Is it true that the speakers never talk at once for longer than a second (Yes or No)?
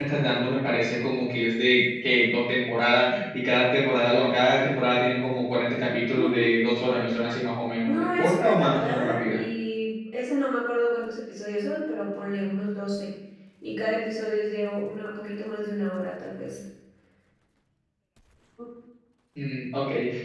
No